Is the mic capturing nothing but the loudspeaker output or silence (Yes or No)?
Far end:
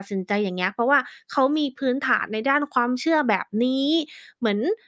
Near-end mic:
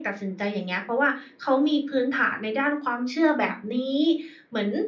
Yes